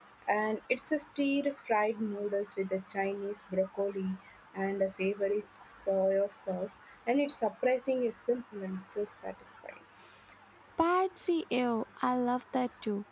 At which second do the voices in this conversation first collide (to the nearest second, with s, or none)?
none